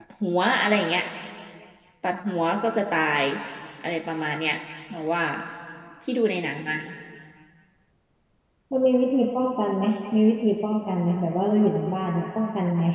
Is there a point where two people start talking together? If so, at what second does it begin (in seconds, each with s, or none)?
none